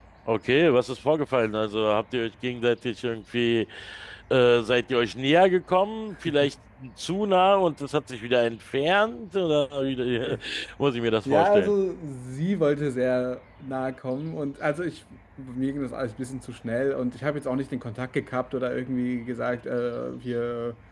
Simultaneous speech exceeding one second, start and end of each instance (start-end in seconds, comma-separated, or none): none